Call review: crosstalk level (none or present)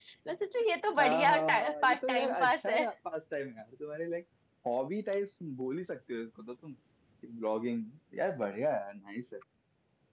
present